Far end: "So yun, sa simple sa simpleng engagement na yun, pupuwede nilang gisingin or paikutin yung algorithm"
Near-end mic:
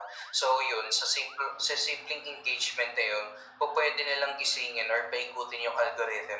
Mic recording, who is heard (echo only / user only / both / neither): echo only